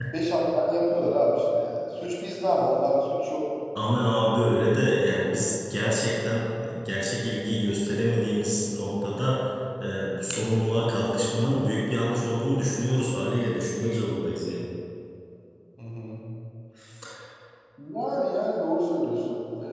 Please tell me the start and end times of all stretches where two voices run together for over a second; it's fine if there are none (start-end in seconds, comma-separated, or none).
none